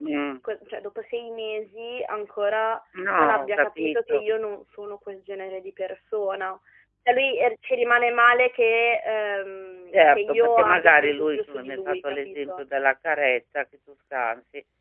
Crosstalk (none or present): present